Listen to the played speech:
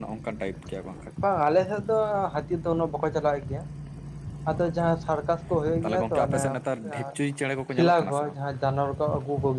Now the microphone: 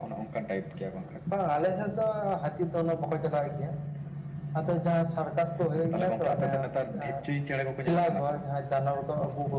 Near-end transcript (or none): none